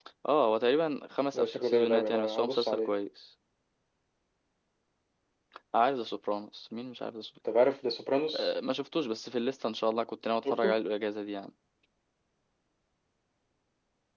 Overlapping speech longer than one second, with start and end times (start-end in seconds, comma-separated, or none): 1.3-2.9